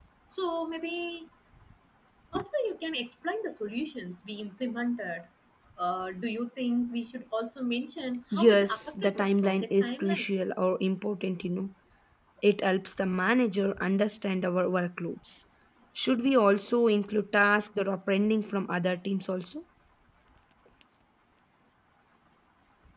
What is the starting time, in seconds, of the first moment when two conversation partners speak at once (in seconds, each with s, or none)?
8.3 s